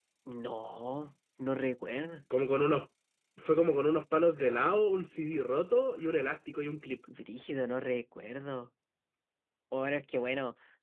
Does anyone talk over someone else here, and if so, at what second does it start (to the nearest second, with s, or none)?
none